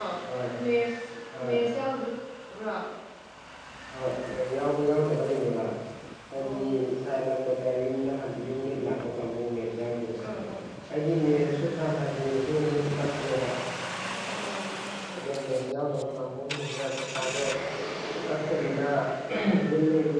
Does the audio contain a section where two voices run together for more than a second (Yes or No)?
No